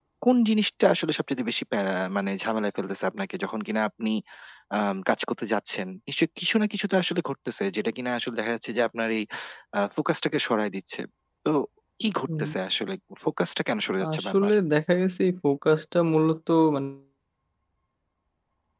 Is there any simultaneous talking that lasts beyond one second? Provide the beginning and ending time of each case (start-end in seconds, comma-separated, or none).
none